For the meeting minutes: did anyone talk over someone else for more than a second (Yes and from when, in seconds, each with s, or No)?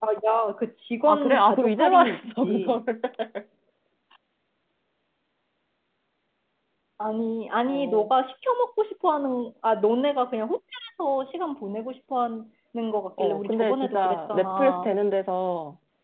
Yes, from 1.1 s